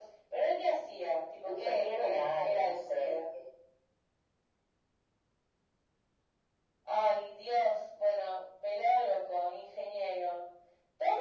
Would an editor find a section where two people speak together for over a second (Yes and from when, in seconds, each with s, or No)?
Yes, from 1.4 s